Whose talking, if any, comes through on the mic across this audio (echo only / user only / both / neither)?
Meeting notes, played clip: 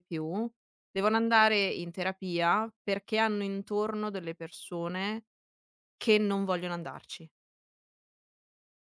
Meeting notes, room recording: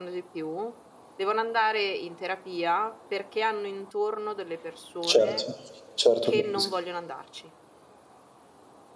both